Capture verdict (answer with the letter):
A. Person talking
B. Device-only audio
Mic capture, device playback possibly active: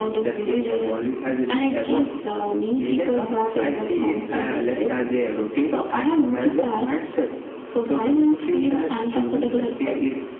B